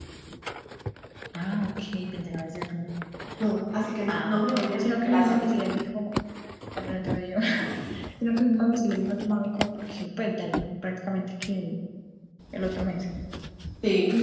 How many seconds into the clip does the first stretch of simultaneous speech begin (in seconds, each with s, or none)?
4.1 s